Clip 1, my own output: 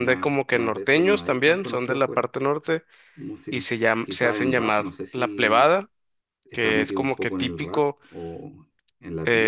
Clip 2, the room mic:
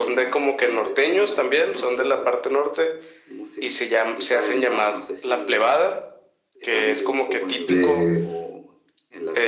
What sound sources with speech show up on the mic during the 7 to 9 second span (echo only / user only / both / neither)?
both